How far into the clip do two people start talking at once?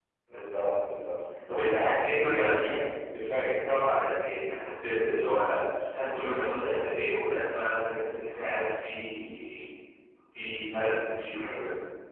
1.5 s

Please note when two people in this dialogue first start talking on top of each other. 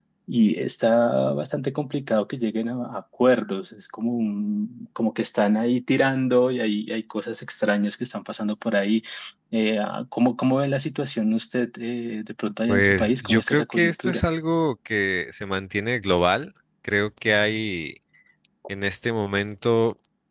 12.7 s

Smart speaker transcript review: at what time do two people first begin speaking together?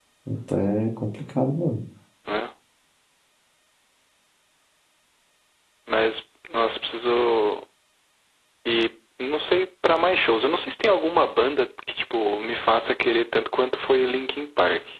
none

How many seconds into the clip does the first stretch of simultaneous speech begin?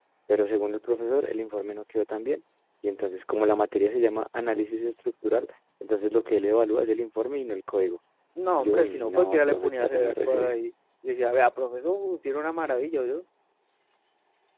8.6 s

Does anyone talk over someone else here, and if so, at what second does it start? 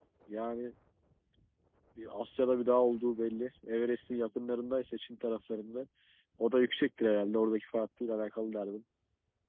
none

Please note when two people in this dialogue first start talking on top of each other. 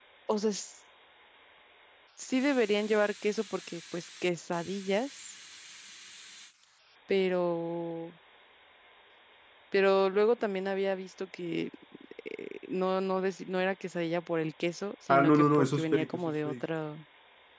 15.1 s

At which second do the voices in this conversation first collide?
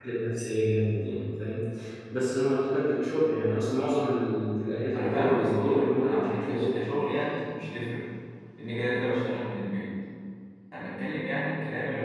4.9 s

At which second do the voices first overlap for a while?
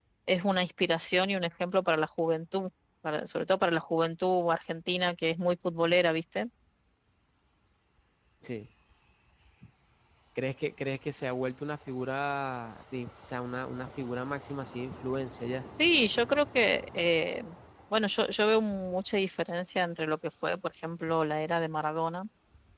none

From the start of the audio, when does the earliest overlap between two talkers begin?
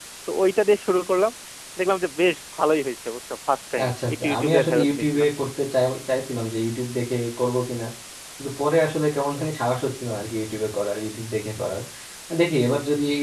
3.8 s

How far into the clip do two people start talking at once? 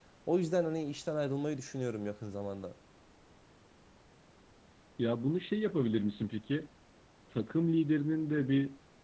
none

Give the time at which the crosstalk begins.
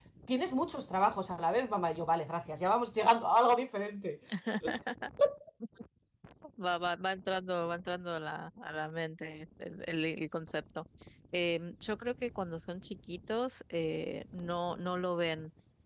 none

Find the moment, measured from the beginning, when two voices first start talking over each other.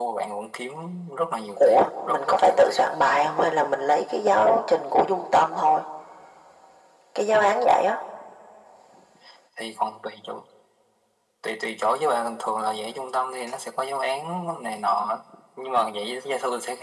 1.6 s

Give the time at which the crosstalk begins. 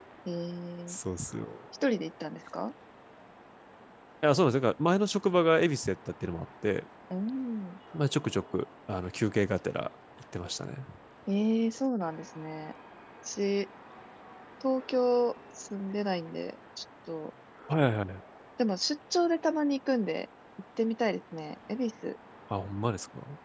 none

